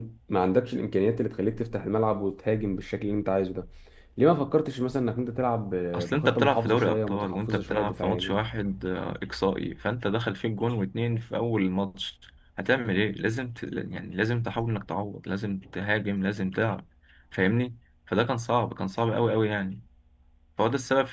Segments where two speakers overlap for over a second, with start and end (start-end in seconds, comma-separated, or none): 5.9-8.4